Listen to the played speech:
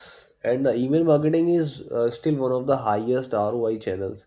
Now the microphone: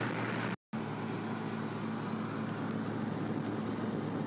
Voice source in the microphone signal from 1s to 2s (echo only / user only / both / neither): neither